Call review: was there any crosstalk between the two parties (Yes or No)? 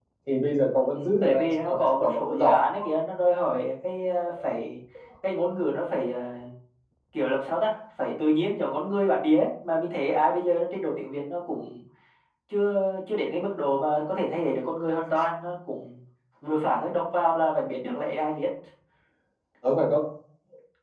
Yes